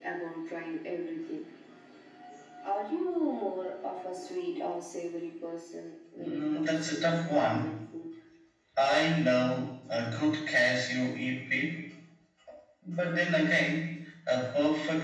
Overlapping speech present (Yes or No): Yes